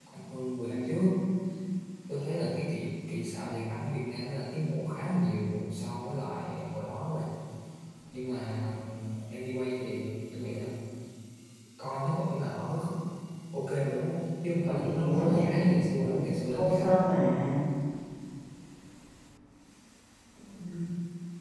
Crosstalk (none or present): present